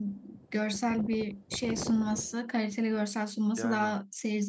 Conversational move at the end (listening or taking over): listening